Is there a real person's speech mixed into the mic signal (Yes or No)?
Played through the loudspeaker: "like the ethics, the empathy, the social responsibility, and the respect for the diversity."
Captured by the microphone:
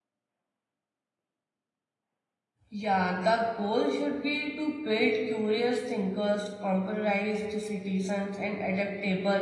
Yes